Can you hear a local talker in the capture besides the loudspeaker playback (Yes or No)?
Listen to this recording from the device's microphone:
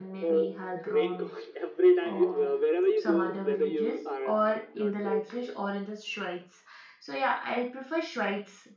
Yes